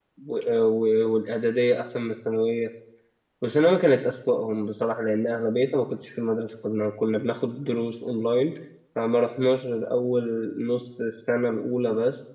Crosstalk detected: No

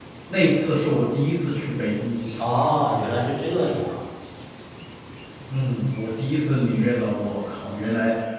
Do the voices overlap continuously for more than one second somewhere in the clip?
No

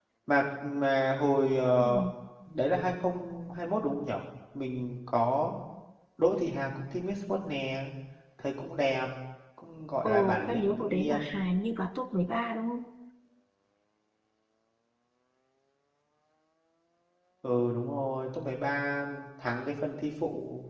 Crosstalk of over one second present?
Yes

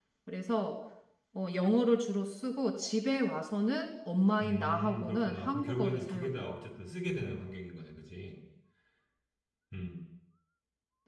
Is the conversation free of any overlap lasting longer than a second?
No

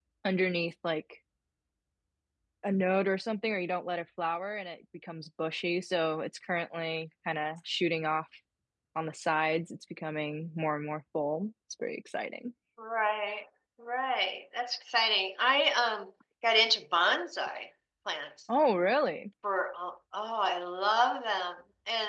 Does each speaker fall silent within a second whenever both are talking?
Yes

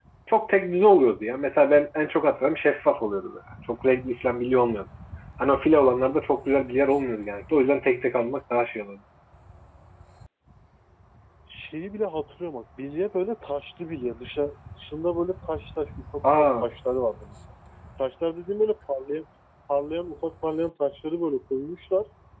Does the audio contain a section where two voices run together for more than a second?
No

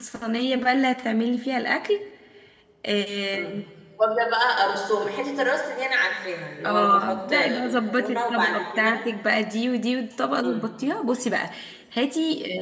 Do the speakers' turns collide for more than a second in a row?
Yes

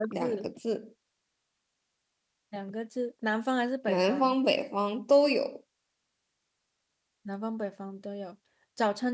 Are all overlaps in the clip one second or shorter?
Yes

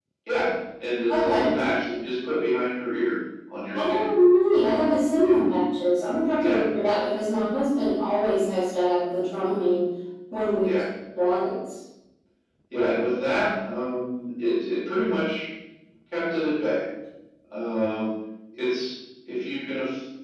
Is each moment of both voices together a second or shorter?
Yes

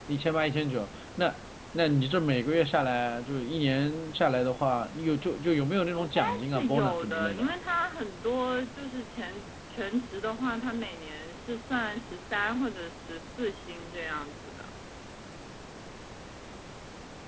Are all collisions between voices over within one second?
No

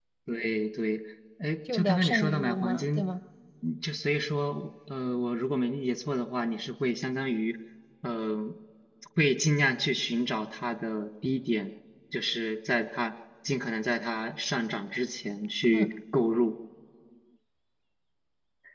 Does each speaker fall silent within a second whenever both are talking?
No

